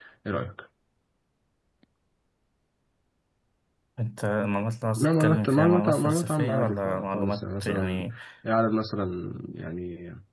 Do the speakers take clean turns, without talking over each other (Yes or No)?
No